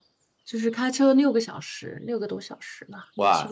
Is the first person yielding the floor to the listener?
Yes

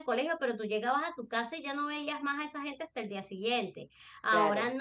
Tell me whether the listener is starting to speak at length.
No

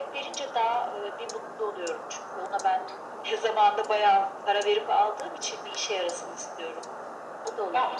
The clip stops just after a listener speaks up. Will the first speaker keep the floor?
No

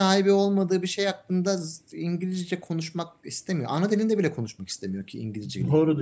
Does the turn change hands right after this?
Yes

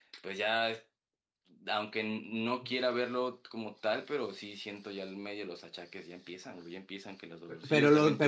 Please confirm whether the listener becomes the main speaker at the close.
Yes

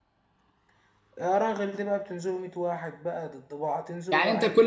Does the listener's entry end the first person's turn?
Yes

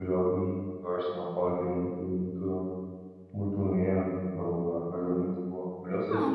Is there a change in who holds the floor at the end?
Yes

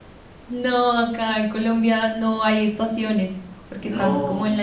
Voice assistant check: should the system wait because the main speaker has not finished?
Yes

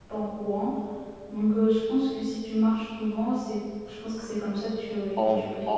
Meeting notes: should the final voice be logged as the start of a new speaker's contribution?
Yes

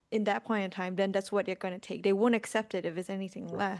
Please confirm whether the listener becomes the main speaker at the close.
No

